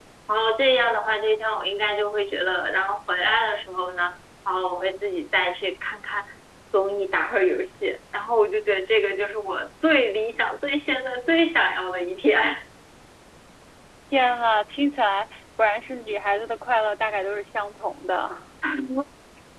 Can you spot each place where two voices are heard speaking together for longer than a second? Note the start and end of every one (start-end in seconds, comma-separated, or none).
none